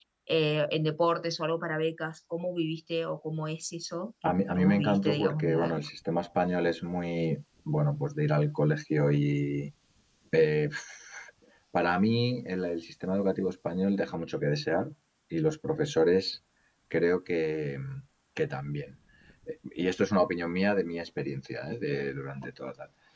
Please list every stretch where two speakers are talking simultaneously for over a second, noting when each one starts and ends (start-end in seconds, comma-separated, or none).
4.2-5.8